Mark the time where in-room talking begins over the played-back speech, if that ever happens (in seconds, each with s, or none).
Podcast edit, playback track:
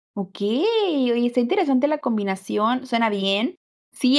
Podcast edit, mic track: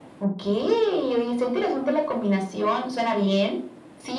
none